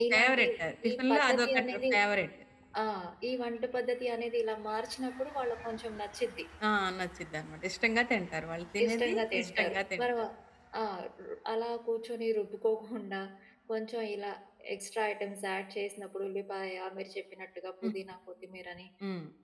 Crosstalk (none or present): present